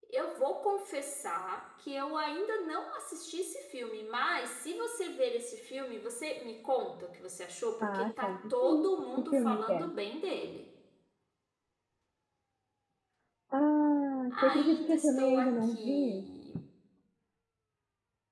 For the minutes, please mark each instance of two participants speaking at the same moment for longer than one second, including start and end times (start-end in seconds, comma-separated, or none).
7.8-9.9, 14.3-16.3